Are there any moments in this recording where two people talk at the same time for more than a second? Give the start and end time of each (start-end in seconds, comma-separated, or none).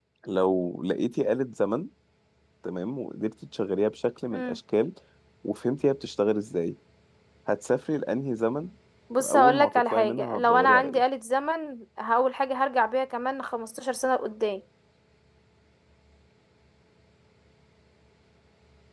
9.2-11.0